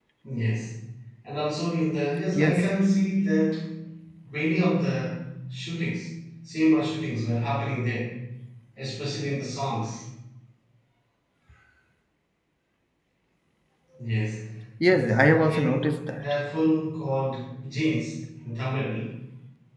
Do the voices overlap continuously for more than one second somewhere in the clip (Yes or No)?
Yes